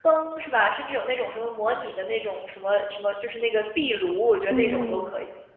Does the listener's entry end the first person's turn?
Yes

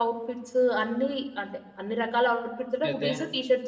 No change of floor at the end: Yes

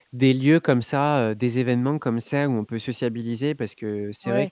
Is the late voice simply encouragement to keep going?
No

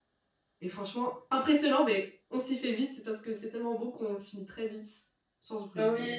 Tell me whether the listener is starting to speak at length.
Yes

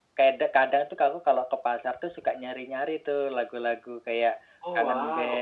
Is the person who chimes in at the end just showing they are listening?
Yes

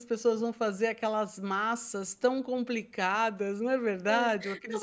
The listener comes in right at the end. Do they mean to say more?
Yes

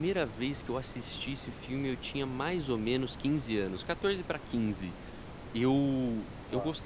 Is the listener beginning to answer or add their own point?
No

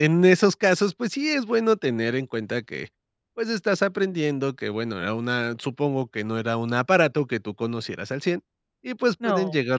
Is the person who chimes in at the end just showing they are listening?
Yes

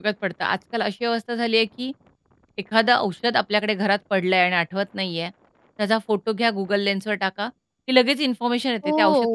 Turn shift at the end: Yes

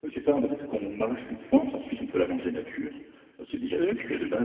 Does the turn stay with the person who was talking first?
Yes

